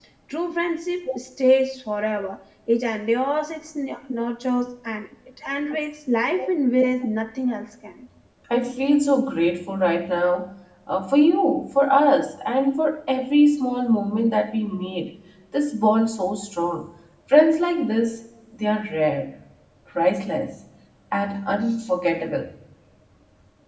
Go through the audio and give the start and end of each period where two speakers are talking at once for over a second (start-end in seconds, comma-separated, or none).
none